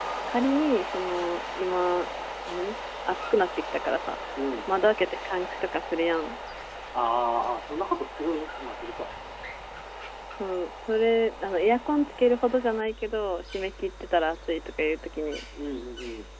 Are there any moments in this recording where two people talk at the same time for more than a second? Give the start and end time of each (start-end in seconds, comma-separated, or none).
none